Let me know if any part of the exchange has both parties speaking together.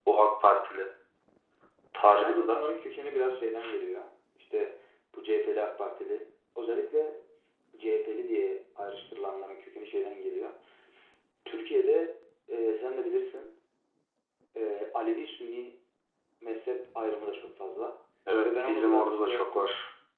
Yes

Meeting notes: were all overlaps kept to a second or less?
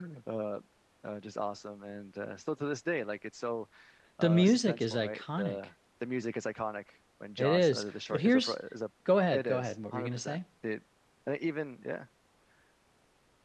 No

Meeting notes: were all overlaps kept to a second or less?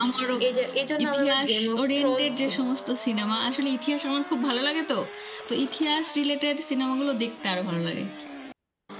No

